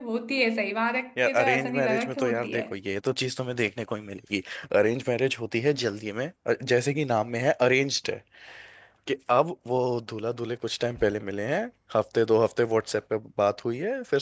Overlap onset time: 1.2 s

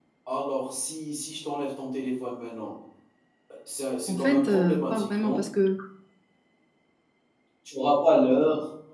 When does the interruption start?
4.1 s

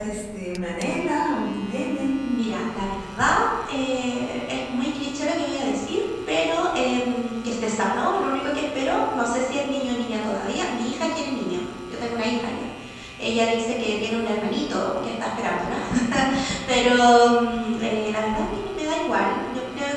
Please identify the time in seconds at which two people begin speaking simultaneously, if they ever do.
none

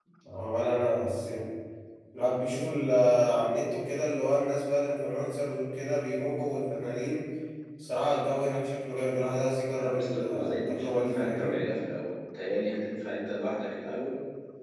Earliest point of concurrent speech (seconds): 9.8 s

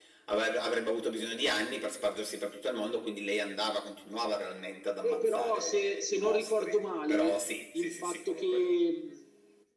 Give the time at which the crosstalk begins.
5.0 s

